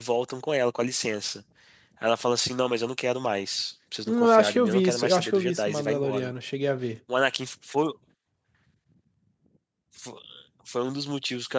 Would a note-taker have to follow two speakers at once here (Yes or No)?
Yes